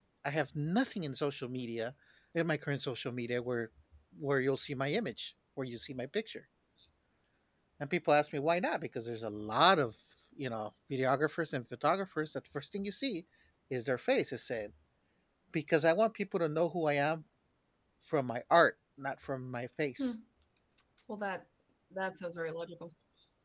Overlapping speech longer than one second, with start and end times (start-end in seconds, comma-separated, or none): none